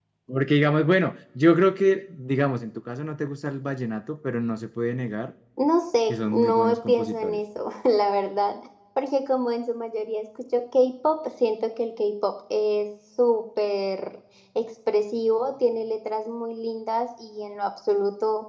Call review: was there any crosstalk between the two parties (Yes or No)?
Yes